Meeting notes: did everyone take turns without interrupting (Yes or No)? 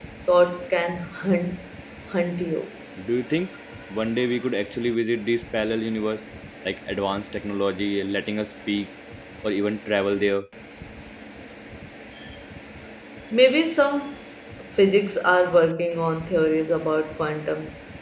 Yes